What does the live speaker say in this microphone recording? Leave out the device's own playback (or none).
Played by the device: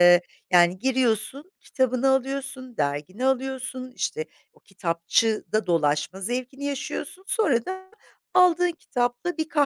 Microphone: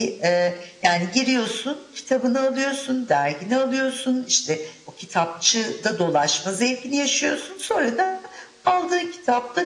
none